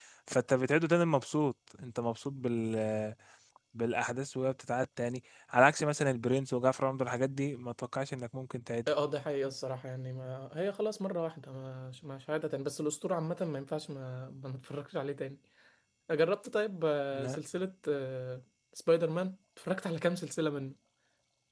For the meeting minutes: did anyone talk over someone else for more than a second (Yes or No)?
No